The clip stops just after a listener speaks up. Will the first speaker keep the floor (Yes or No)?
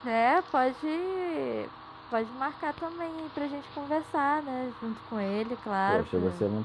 No